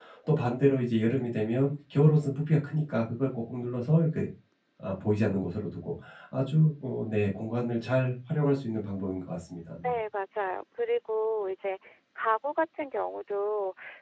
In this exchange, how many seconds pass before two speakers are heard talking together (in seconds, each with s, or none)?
none